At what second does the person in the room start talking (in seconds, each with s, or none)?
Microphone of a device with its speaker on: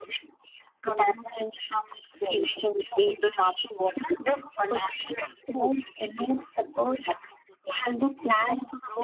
none